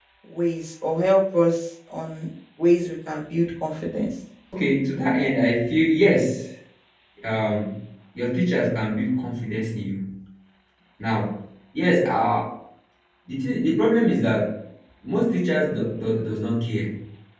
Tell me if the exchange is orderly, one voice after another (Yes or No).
Yes